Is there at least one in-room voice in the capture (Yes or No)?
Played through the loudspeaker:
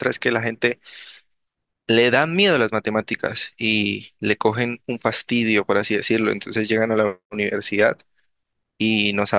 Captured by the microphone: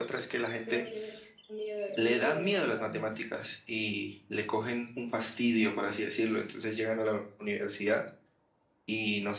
Yes